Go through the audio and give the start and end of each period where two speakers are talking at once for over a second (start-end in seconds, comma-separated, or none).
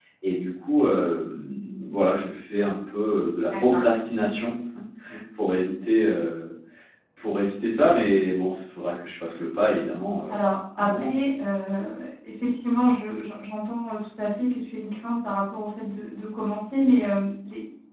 none